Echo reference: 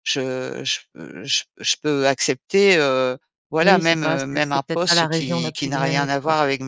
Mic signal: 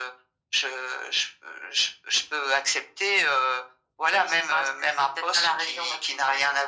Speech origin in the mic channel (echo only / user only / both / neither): echo only